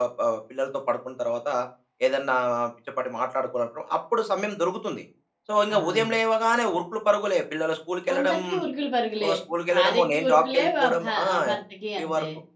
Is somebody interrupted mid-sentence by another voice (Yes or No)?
Yes